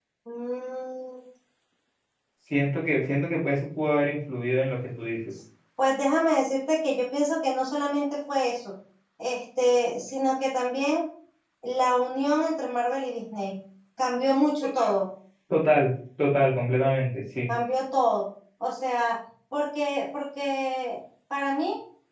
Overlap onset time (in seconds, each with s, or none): none